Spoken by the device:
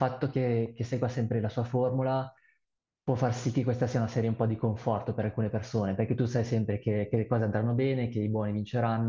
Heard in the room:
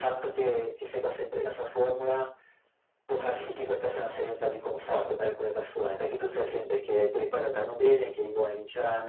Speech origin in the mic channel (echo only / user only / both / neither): echo only